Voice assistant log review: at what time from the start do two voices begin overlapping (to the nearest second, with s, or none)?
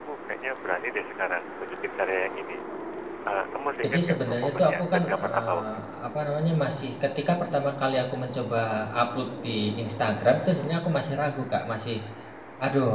4 s